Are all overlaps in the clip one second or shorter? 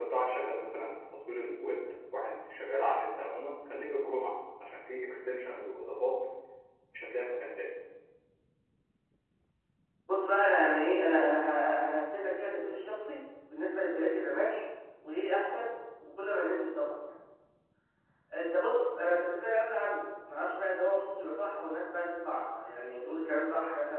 Yes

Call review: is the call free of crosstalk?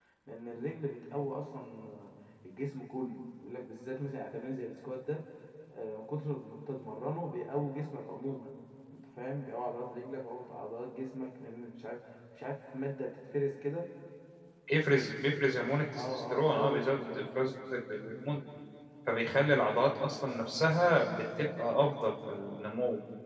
No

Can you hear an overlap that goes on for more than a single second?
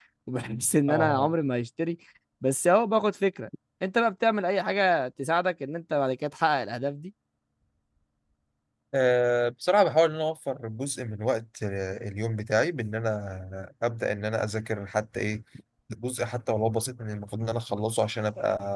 No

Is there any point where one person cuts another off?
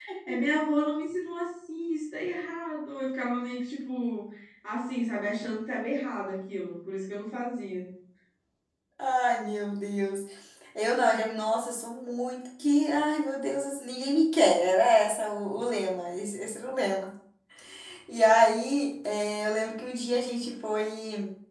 No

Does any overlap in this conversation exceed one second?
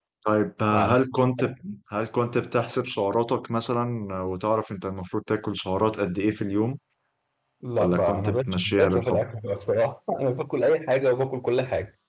Yes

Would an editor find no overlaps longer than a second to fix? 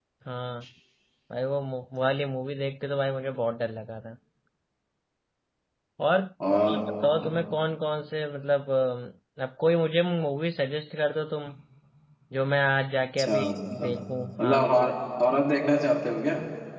Yes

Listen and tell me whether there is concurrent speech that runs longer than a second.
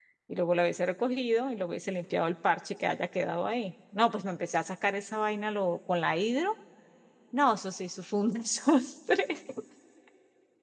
No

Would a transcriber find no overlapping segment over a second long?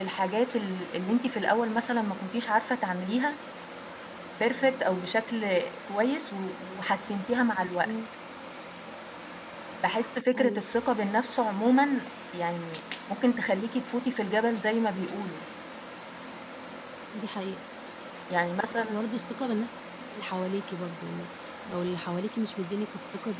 Yes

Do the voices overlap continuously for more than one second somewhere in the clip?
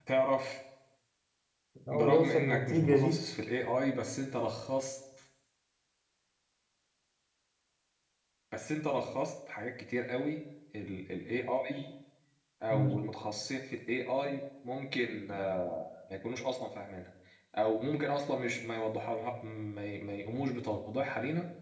Yes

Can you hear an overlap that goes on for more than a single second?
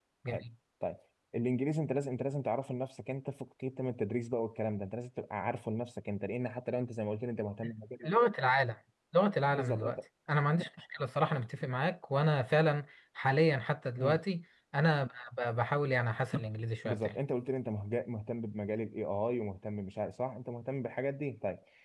No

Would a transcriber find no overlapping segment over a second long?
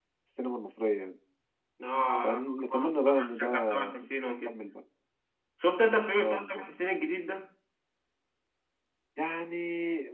No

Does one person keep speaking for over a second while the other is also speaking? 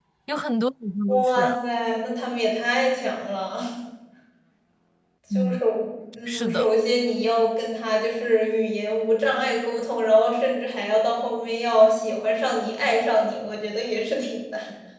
No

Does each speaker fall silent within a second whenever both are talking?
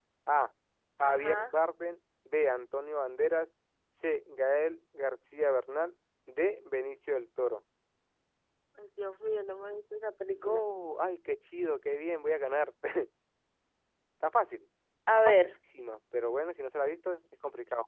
Yes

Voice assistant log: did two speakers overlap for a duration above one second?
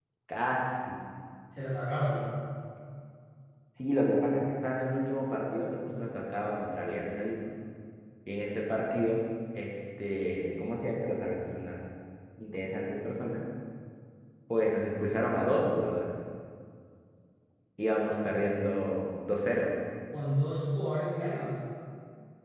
No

